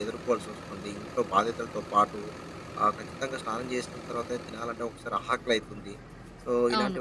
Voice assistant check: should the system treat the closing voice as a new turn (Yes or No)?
No